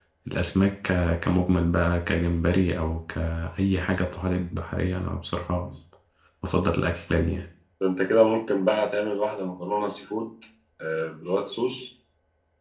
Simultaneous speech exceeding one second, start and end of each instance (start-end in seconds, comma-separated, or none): none